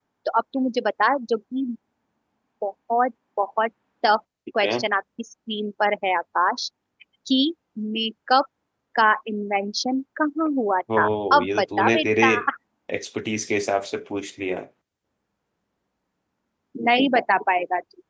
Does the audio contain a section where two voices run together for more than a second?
Yes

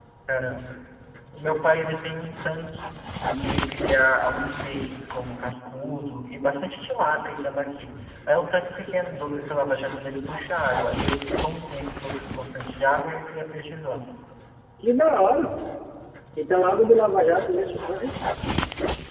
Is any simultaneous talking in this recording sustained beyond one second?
No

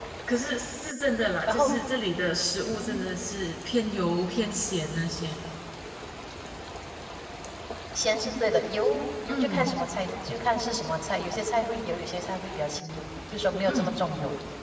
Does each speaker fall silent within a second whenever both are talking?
Yes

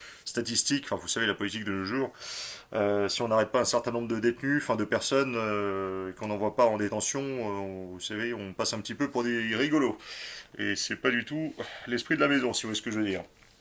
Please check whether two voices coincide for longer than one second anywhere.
No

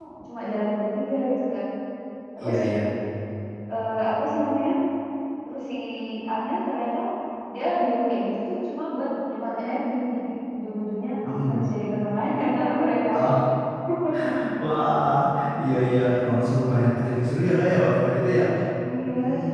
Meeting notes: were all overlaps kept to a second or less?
Yes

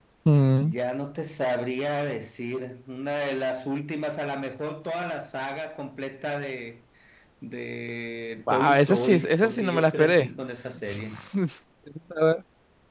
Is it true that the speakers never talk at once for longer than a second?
No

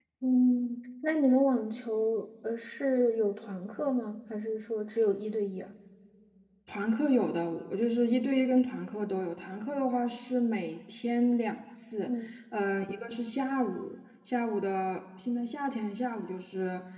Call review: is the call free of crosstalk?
Yes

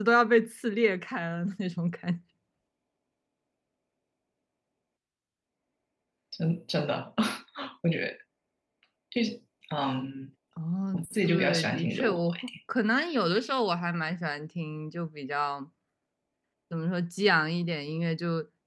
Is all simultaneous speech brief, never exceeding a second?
No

